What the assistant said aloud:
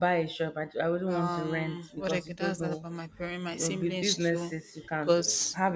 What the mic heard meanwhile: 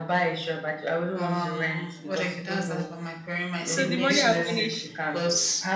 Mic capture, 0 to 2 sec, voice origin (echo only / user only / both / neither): echo only